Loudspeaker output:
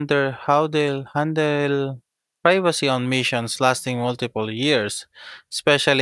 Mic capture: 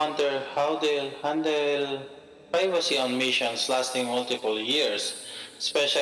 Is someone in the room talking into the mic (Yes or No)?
No